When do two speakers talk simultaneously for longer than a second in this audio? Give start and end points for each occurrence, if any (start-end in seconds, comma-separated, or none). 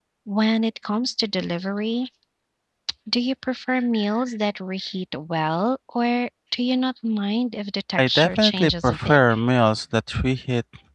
8.0-9.2